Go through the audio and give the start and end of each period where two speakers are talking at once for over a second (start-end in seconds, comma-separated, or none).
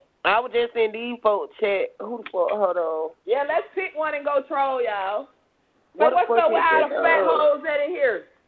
6.0-7.5